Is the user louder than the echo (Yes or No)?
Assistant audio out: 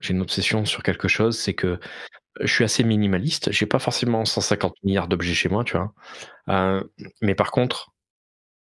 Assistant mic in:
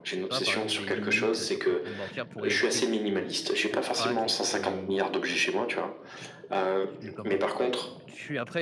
No